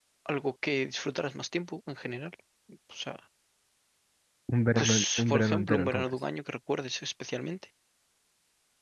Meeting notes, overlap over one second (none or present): present